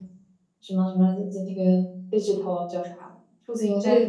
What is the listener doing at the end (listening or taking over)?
taking over